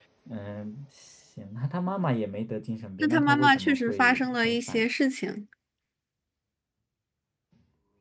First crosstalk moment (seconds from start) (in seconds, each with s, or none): 3.0 s